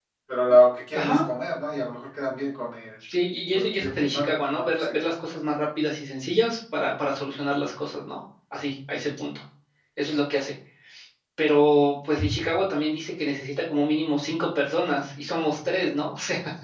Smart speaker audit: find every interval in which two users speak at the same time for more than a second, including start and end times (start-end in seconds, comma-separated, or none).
3.5-4.9